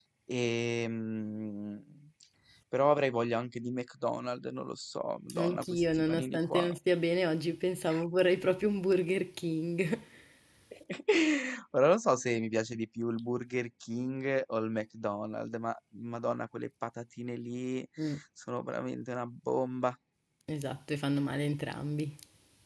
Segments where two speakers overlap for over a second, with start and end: 5.3-6.7

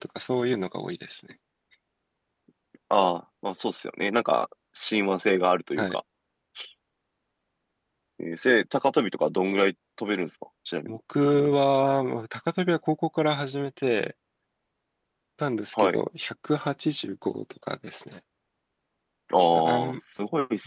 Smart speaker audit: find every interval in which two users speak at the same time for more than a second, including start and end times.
none

